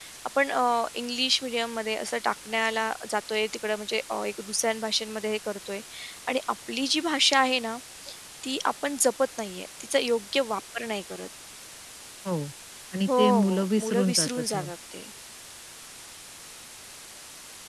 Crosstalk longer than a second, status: present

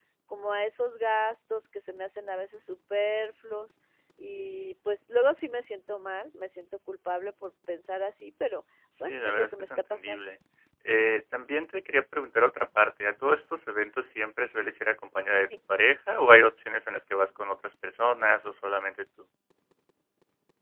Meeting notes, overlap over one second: present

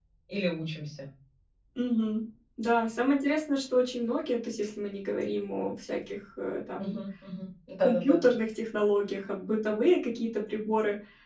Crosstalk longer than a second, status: none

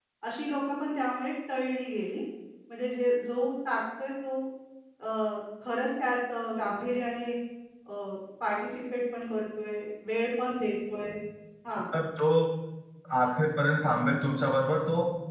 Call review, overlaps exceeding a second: none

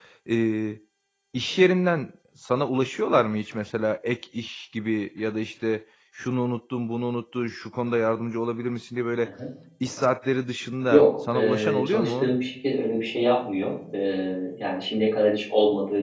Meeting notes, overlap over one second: present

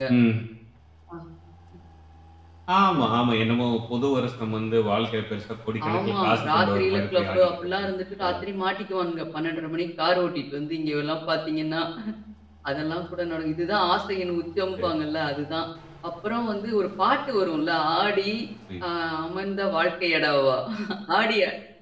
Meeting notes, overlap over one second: present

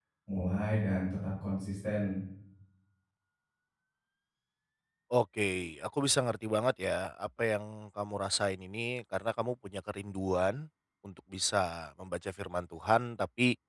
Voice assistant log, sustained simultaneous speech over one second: none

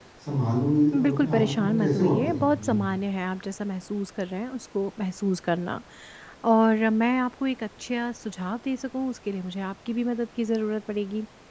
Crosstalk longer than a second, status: present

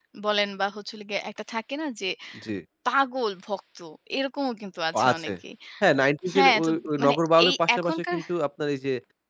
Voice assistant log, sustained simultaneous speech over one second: present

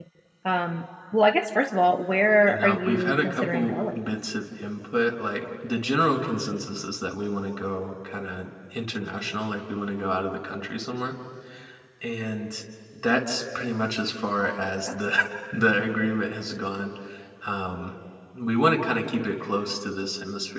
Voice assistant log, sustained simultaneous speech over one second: present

